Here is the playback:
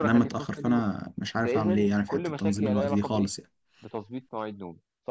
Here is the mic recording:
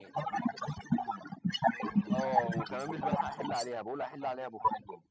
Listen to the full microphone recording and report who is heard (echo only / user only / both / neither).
both